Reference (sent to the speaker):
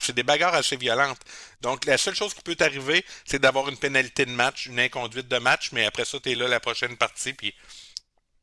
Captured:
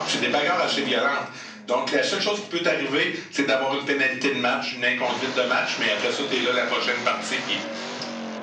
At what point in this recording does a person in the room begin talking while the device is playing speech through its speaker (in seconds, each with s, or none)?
none